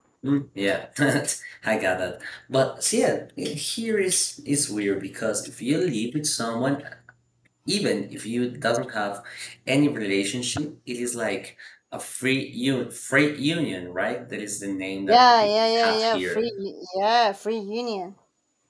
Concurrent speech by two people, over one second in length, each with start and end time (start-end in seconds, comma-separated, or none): 15.1-16.5